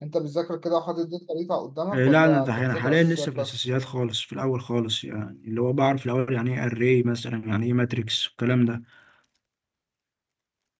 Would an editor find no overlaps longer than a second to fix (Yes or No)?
No